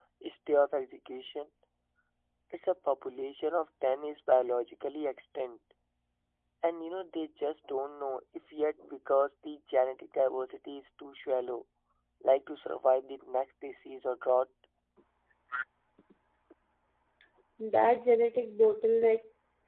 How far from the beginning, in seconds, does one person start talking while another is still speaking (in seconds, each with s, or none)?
none